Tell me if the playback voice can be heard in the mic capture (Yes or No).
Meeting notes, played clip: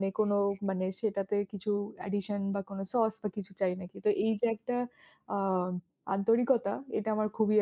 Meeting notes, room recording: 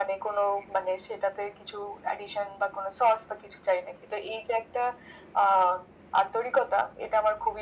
Yes